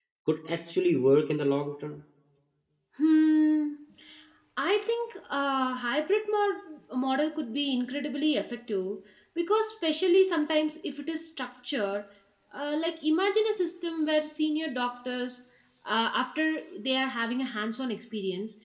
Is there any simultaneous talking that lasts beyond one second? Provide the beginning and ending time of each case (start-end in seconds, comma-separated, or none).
none